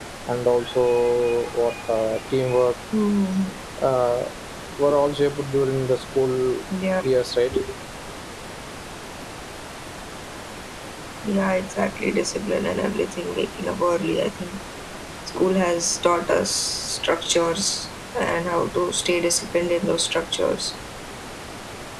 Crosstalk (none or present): none